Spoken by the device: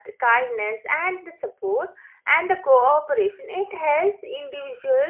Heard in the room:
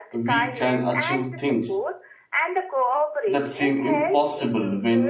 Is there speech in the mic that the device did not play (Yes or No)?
Yes